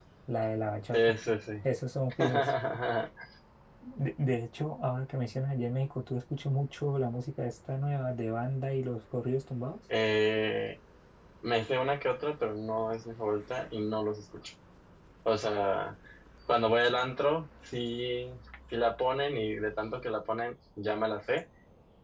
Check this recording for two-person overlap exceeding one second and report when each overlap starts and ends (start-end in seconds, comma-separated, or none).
none